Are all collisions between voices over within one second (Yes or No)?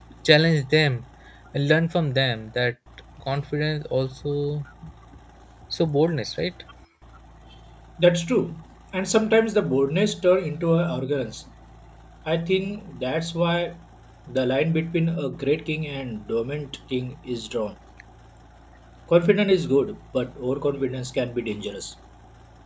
Yes